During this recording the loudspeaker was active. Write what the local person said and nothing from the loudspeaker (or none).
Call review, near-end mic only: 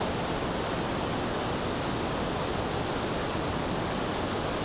none